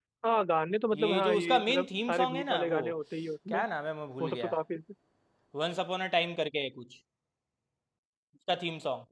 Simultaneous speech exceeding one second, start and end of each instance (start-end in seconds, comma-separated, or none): 0.9-2.8